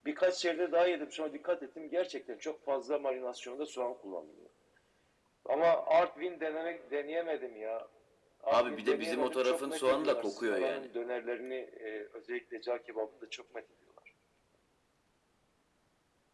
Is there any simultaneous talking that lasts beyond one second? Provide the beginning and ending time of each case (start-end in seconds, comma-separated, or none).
8.5-10.9